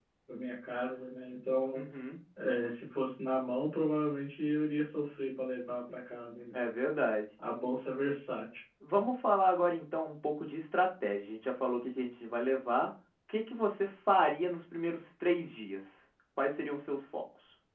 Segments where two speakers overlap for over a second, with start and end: none

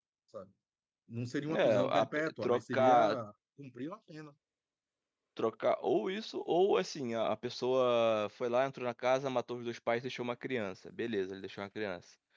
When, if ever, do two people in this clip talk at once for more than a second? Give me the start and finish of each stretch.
1.5-3.0

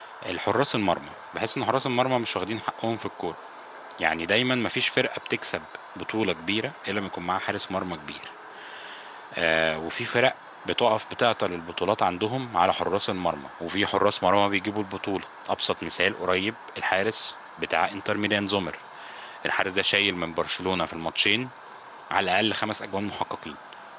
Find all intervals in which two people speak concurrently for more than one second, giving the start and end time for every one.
none

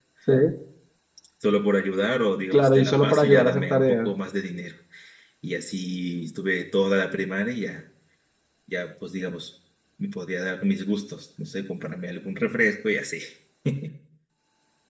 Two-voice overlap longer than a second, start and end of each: 2.5-4.1

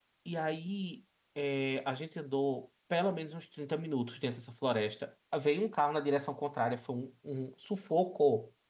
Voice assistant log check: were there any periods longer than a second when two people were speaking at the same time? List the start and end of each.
none

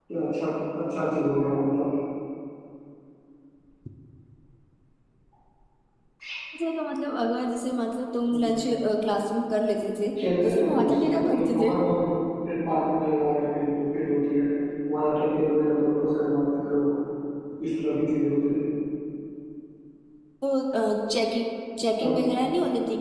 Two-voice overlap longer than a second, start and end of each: 10.4-11.7

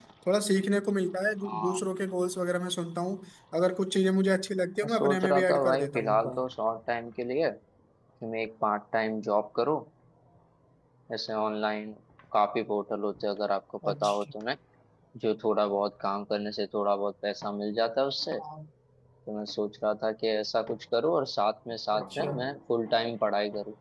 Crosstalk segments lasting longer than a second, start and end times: 4.8-6.3

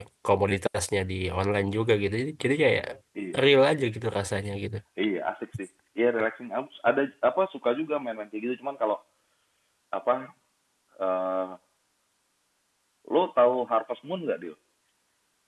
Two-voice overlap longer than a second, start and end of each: none

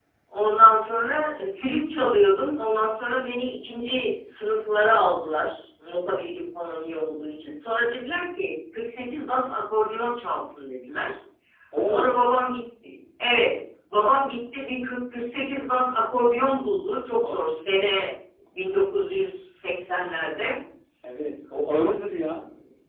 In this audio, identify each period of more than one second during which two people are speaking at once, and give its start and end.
none

